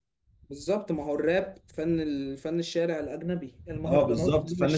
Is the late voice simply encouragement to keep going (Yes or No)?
No